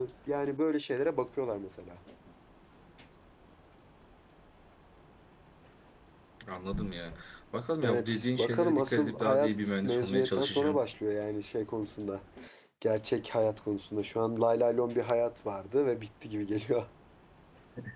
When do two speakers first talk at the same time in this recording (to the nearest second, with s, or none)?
8 s